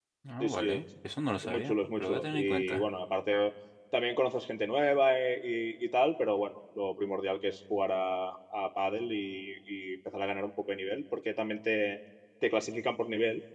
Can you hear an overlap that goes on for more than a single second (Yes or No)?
Yes